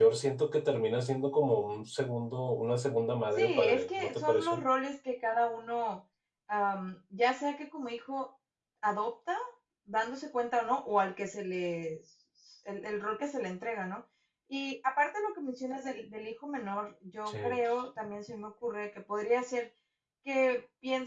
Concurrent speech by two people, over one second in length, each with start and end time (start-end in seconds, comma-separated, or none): 3.4-4.6